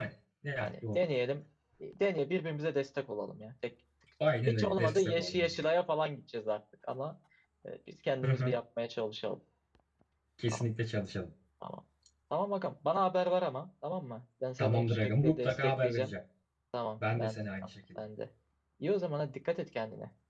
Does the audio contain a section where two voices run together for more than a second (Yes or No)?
Yes